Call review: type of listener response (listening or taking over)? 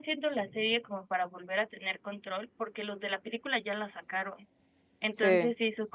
listening